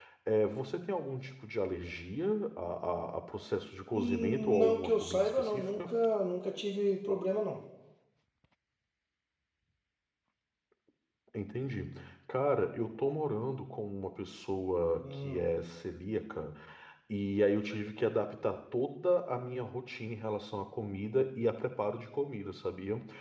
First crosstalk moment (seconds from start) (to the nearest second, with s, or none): 4 s